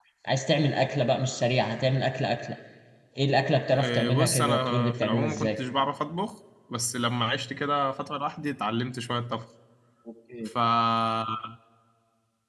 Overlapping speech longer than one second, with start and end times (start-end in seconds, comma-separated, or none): 3.8-5.6